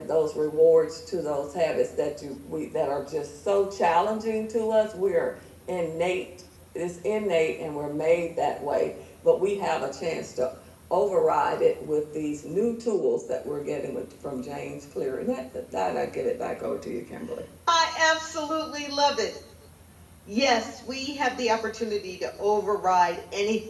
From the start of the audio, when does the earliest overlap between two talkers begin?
none

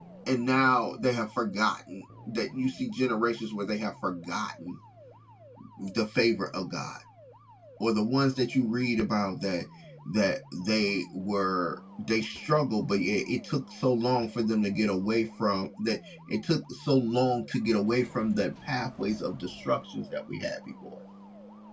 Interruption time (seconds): none

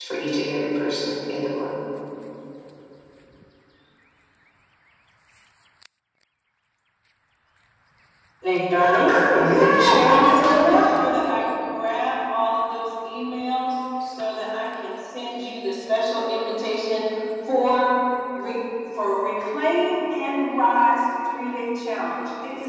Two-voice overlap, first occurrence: 8.7 s

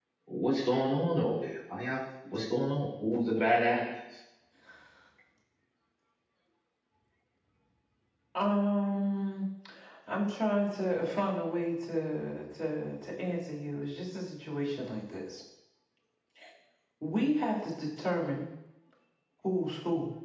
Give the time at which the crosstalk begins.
none

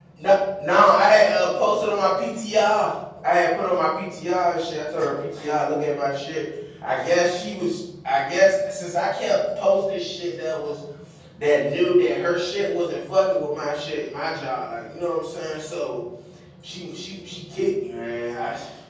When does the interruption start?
none

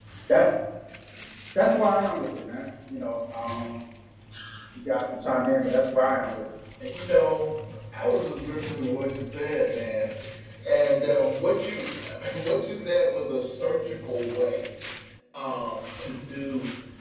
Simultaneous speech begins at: none

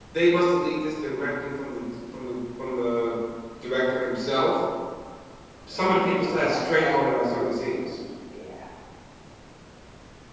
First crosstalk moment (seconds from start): 5.7 s

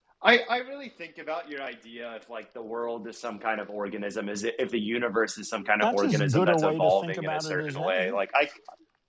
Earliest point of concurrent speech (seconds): 5.6 s

